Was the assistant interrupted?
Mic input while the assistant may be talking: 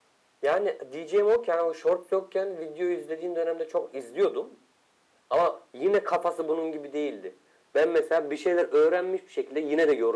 No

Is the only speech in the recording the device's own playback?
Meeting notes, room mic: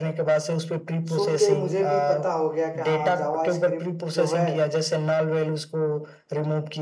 No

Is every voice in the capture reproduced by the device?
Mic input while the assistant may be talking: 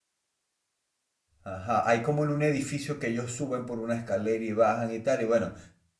No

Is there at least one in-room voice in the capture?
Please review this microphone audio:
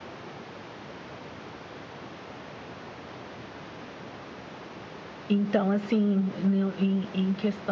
Yes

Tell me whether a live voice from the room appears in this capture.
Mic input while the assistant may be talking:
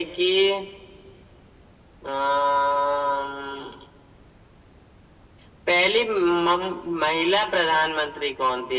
No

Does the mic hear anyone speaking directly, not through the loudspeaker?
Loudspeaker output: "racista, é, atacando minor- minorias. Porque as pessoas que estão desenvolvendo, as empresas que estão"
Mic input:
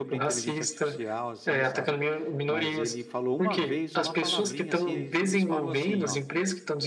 Yes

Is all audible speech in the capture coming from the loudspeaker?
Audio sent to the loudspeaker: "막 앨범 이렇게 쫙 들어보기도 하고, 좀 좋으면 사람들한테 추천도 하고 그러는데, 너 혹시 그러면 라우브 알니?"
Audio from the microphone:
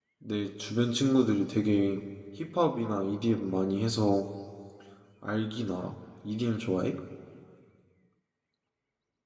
No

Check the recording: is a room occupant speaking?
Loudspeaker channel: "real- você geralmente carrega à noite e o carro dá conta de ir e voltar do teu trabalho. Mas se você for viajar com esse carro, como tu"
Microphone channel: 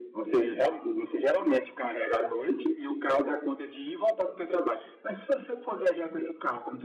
No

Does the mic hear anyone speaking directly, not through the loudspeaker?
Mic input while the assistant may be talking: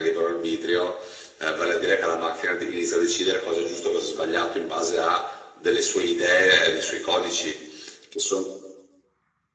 No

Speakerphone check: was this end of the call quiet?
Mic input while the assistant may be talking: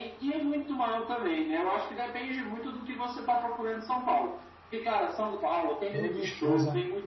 No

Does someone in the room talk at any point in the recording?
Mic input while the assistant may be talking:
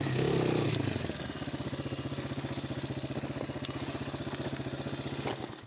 No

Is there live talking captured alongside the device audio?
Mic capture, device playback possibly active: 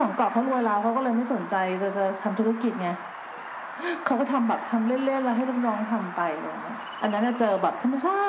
No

